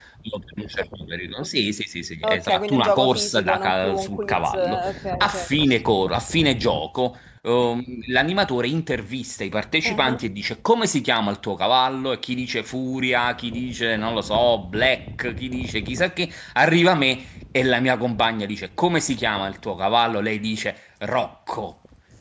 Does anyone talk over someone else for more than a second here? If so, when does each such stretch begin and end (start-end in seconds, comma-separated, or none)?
2.2-4.8